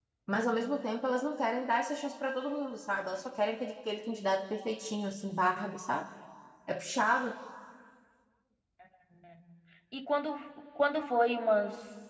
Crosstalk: none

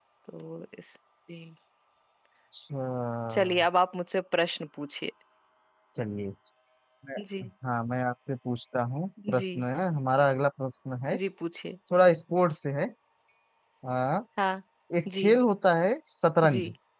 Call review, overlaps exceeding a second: none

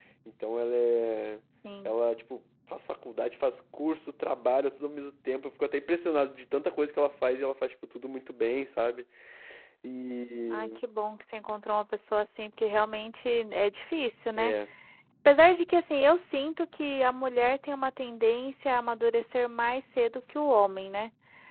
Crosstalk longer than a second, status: none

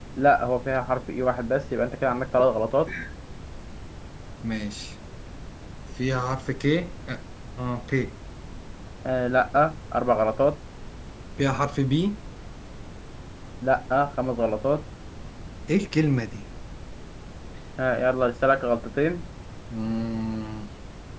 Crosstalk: none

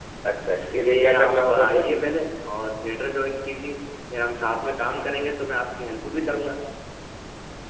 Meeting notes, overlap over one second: present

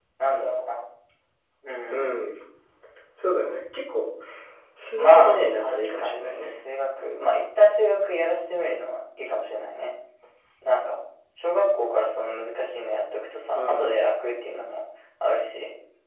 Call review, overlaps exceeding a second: present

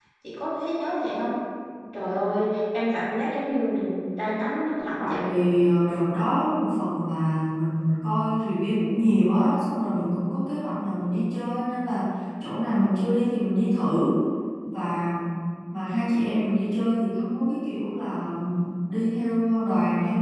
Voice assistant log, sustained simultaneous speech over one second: none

